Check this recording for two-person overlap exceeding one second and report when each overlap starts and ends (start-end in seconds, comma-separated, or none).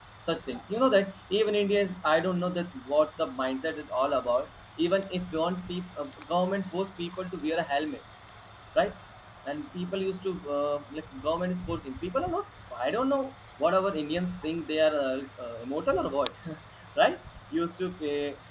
none